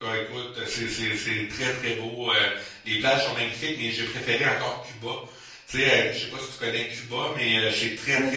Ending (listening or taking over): listening